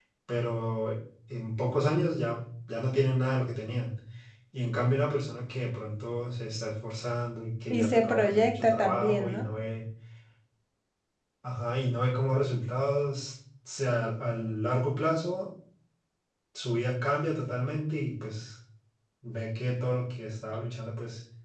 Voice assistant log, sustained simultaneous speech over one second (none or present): present